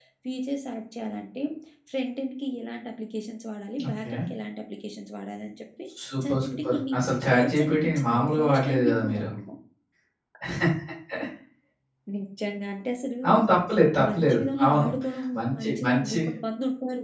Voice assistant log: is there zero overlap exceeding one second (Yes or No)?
No